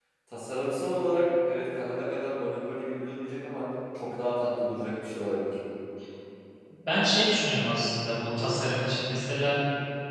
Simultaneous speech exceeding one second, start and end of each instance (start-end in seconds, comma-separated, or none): none